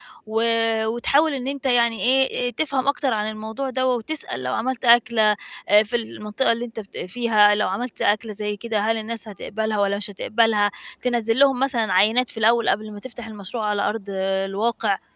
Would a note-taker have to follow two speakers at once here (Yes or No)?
No